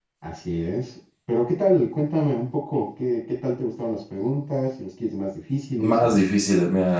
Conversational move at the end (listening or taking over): taking over